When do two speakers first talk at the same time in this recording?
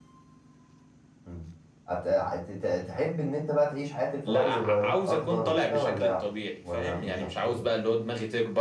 4.2 s

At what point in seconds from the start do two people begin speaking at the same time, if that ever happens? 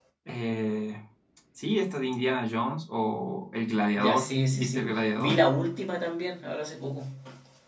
4.0 s

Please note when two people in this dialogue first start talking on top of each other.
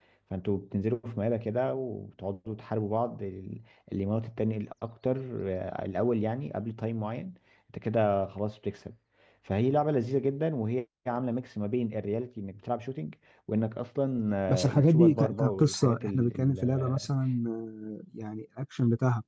14.5 s

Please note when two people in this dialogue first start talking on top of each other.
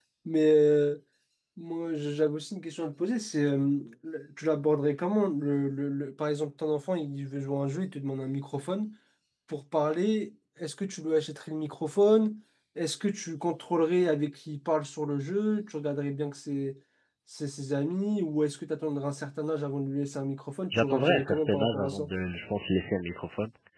20.7 s

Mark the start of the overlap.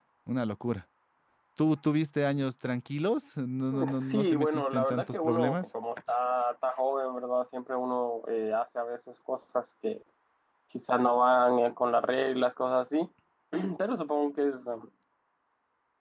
3.7 s

